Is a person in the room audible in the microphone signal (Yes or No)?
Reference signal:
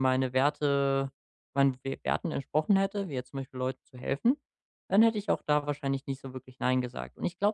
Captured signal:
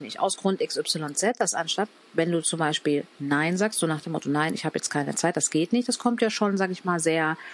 Yes